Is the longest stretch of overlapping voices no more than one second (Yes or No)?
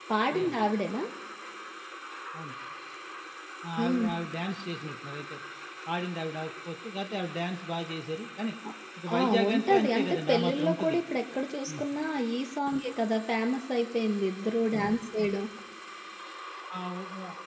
No